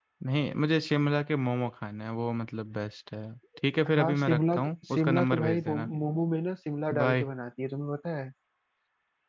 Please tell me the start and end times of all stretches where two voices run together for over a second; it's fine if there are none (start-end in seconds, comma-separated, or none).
3.9-5.9